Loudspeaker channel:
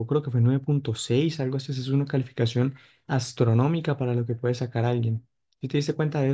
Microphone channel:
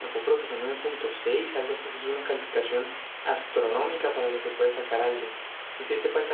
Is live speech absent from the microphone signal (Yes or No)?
Yes